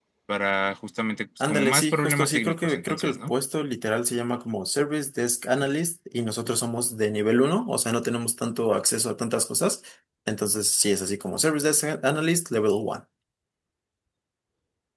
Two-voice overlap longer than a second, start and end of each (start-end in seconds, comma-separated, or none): 1.5-3.3